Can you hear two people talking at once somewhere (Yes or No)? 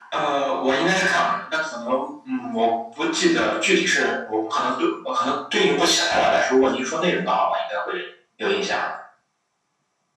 No